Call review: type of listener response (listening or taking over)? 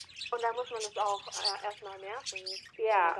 taking over